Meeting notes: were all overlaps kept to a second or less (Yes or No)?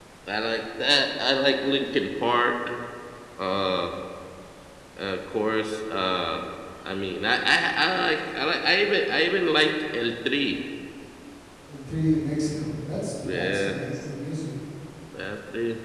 Yes